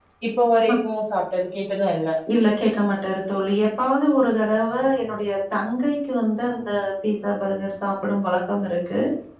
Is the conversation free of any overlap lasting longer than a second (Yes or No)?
Yes